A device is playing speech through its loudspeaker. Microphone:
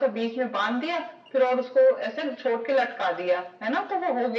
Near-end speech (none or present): none